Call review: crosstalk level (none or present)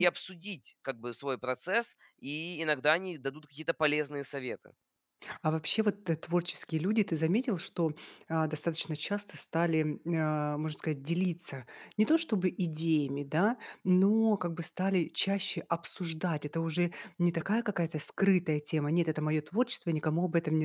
none